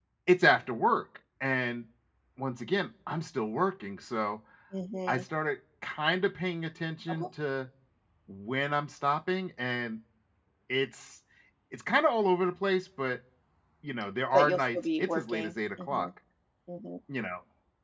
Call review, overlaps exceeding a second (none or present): present